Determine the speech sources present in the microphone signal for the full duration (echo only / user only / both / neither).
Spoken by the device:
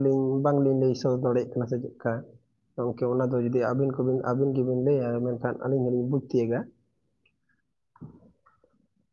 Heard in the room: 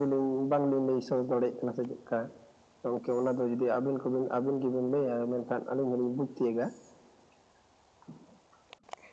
echo only